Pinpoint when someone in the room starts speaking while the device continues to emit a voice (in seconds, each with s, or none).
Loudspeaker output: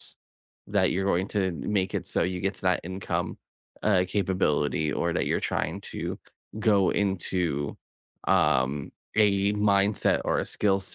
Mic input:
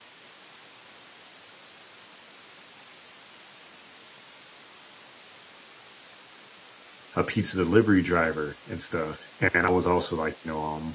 7.2 s